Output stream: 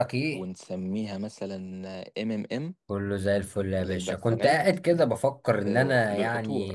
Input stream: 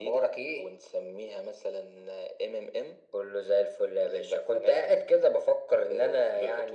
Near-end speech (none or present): none